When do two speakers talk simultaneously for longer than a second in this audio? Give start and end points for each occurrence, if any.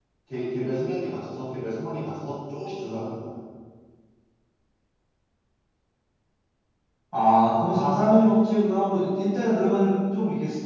none

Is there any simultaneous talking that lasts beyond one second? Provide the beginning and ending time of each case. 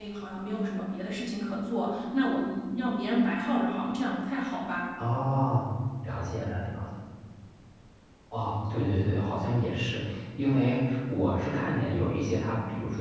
none

